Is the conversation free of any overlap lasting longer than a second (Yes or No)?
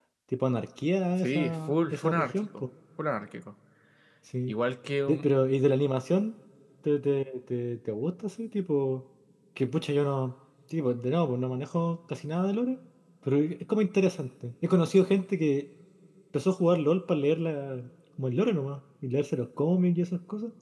No